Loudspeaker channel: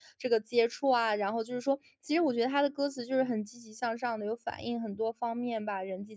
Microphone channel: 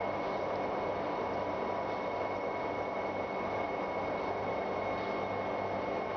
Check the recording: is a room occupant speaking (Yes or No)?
No